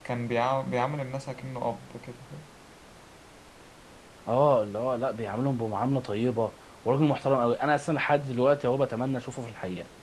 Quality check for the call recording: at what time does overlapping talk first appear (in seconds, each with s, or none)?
none